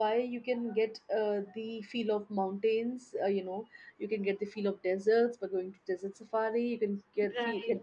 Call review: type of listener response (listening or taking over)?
listening